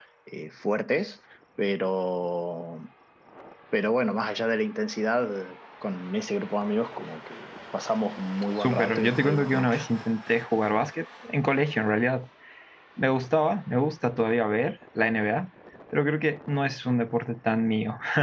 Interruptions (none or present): present